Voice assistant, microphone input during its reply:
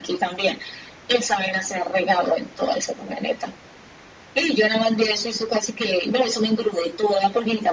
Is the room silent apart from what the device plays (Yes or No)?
Yes